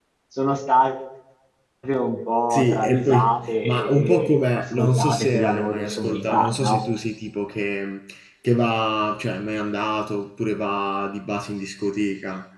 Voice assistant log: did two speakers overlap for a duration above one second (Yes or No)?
Yes